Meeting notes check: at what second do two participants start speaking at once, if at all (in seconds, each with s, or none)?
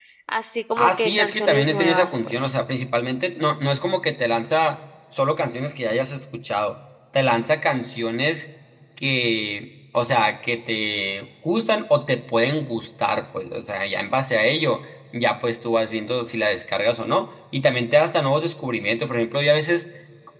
0.8 s